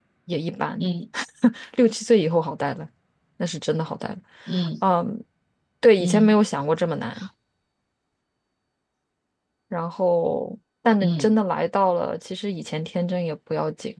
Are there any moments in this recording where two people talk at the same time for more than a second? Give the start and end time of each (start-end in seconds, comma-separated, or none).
none